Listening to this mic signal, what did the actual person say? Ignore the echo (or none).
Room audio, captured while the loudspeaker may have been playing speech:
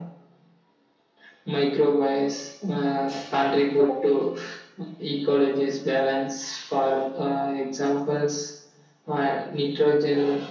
none